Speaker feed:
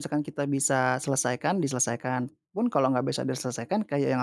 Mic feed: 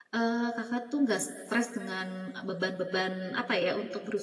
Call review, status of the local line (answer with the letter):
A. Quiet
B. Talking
B